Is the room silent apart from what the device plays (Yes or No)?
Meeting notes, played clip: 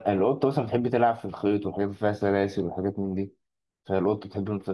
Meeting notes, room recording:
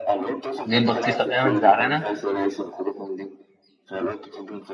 No